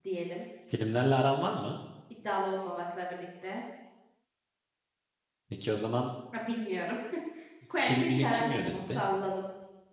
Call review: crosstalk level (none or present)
present